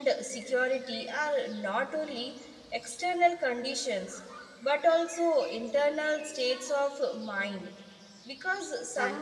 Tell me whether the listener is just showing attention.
Yes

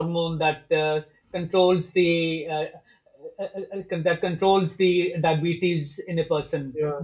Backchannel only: No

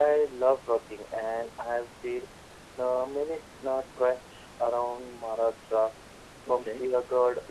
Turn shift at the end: No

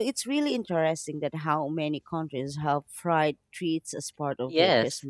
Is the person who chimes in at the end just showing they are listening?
No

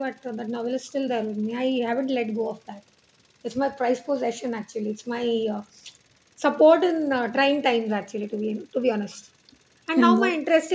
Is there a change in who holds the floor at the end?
No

